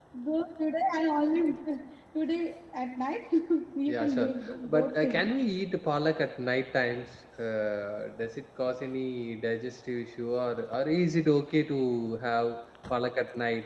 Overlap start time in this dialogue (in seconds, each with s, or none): 3.9 s